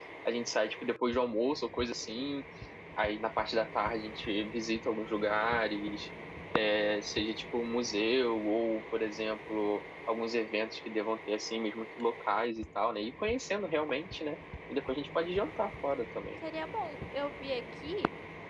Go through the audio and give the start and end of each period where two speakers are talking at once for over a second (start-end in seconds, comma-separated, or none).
none